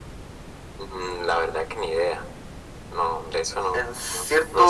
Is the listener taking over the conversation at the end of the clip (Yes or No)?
Yes